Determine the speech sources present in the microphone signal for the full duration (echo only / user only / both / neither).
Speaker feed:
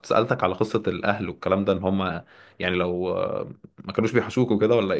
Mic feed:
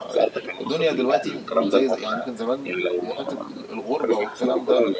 both